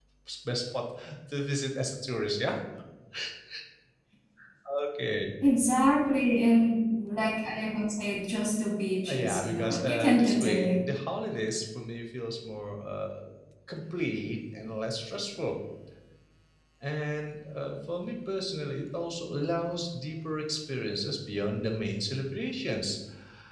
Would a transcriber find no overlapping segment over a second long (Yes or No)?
No